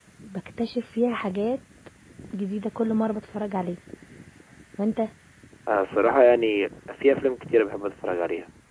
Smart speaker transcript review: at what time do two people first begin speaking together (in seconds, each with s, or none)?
none